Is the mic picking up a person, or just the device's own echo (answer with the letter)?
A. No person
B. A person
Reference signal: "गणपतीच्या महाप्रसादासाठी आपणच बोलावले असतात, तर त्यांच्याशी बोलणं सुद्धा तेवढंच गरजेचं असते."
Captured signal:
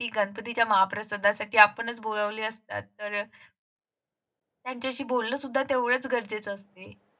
A